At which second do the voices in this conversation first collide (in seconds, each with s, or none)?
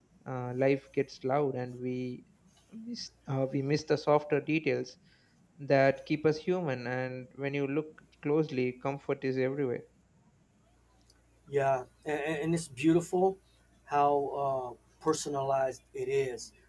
none